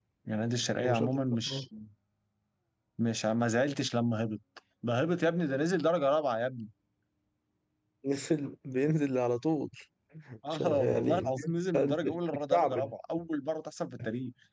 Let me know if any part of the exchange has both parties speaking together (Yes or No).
Yes